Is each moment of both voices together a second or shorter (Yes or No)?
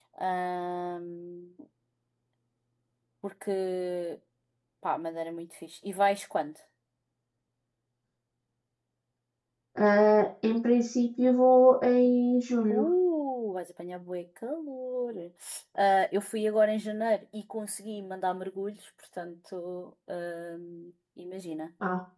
Yes